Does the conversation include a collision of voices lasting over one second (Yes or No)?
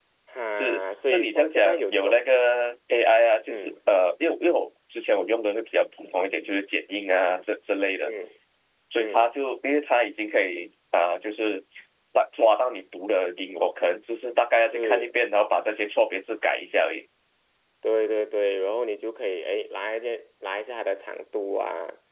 Yes